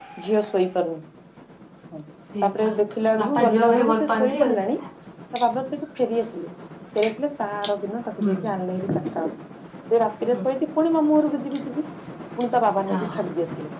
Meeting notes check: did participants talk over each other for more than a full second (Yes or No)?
Yes